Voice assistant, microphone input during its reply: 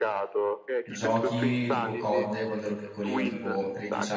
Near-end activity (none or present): present